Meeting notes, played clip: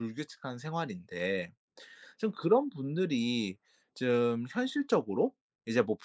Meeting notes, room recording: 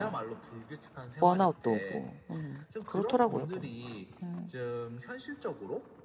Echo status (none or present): present